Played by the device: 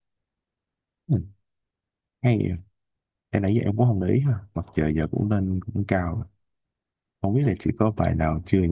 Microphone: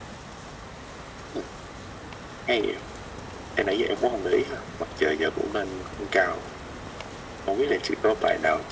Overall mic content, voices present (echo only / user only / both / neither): echo only